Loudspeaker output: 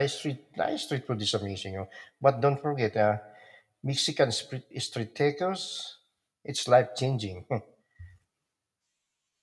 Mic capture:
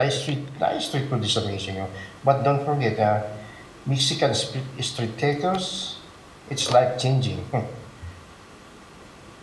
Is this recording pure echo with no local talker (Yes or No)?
Yes